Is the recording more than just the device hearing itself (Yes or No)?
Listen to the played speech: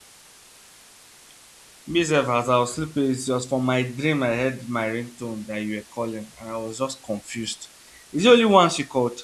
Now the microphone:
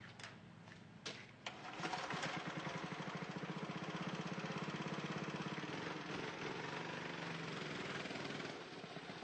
No